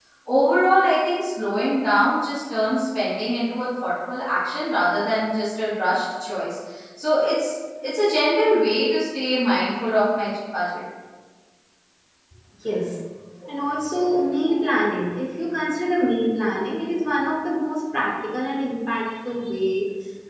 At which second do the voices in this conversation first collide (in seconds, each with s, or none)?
none